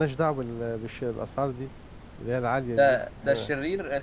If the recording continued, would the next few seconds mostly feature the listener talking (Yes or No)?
Yes